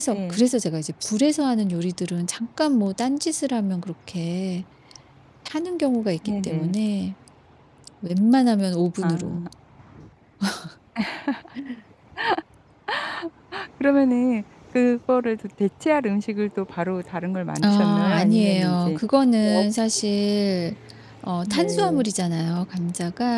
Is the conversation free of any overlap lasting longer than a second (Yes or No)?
No